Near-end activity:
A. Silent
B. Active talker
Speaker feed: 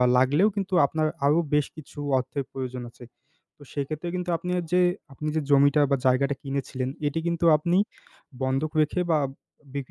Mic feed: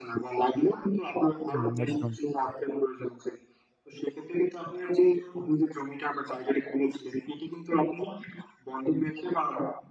B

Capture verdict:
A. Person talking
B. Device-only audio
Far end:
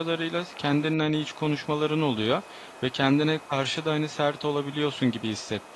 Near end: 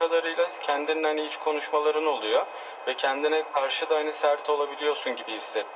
B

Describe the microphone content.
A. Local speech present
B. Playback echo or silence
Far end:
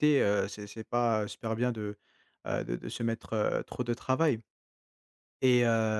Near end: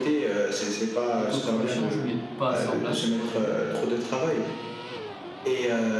A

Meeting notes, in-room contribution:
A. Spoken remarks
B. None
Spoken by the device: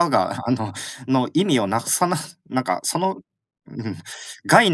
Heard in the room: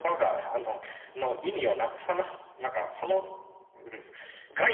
B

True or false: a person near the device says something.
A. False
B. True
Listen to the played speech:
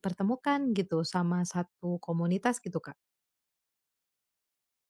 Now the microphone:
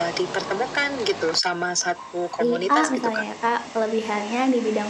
B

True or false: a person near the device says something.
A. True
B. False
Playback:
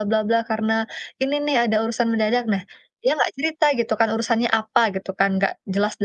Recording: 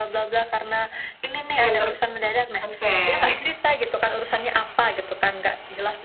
A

